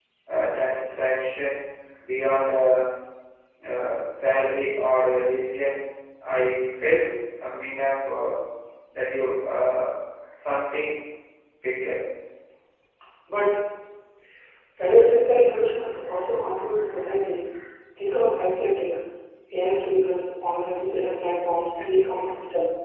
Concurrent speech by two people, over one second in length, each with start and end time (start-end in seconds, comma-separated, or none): none